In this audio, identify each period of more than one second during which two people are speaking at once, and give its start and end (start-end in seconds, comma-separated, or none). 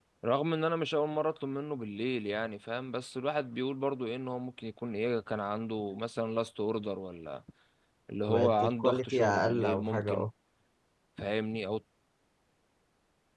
8.3-10.3